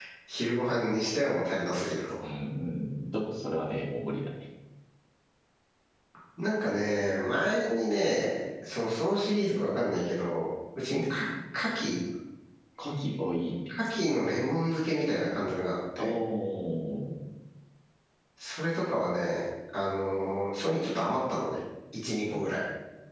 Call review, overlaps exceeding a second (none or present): none